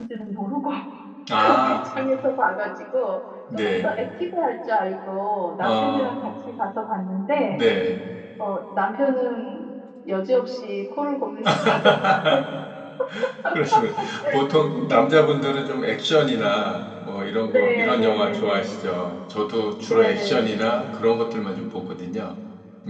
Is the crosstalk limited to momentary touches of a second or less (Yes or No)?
No